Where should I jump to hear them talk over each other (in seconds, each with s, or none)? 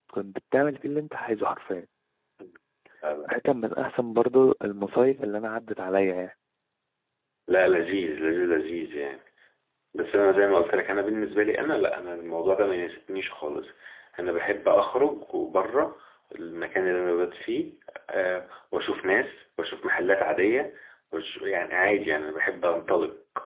none